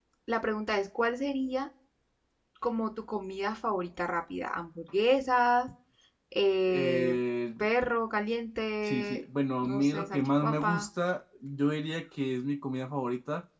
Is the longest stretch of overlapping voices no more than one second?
No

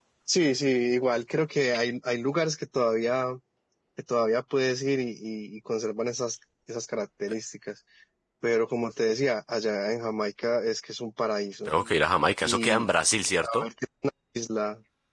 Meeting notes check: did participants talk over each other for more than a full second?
No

